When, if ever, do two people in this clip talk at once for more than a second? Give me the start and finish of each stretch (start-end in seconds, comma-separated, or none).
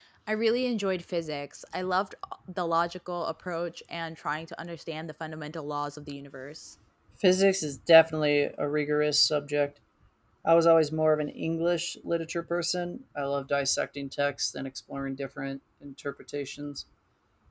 none